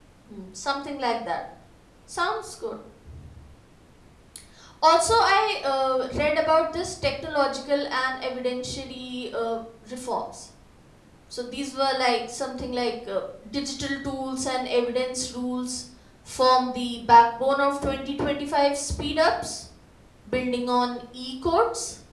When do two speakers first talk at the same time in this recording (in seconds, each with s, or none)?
none